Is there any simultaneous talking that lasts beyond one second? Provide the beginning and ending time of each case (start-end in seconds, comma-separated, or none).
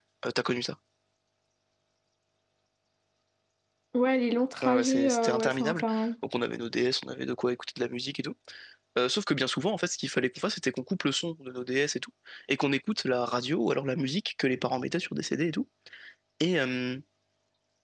4.6-5.8